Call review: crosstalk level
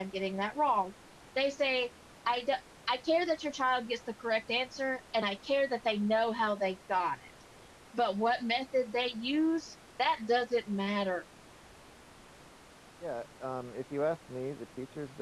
none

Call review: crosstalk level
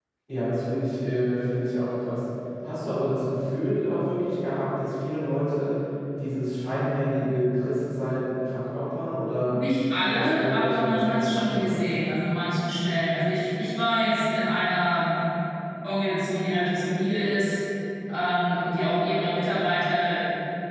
present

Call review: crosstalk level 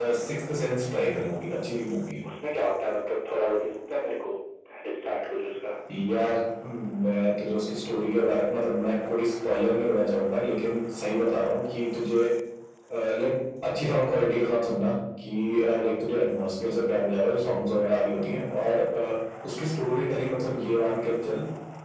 none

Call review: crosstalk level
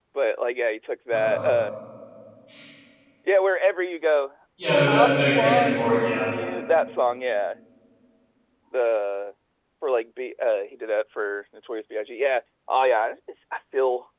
present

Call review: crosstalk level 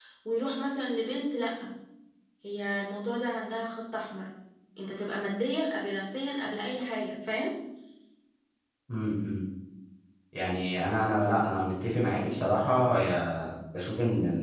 none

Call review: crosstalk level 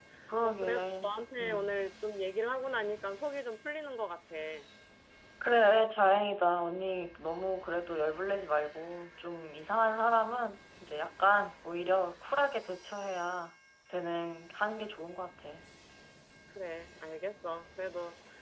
present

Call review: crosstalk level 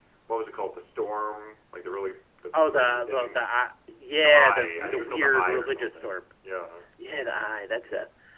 present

